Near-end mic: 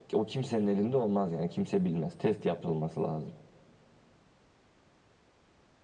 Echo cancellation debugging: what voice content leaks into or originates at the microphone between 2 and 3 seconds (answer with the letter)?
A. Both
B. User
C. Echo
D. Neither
C